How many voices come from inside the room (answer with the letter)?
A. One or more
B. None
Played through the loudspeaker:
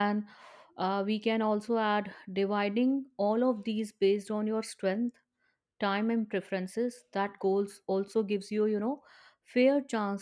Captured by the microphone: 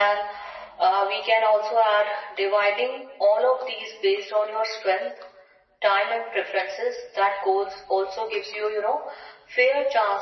B